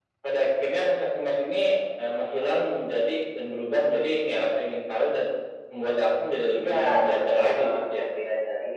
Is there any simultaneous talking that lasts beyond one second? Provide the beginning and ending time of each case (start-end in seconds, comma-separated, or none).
6.5-8.1